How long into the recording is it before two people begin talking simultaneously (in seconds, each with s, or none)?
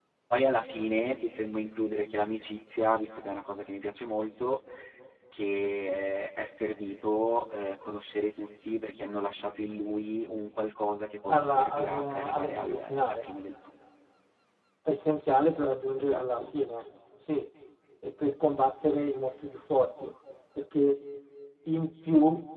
11.3 s